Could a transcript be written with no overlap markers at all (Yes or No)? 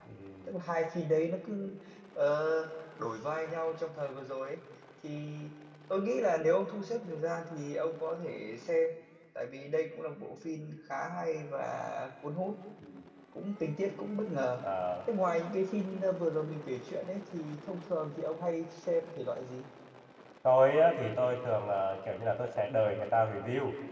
Yes